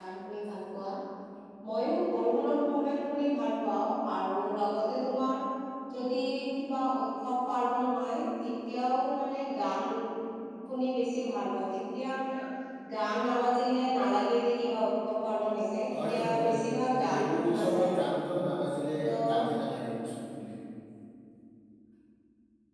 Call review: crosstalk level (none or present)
present